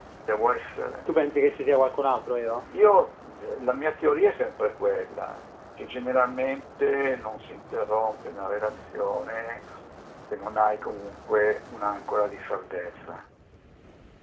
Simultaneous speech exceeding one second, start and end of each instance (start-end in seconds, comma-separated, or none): none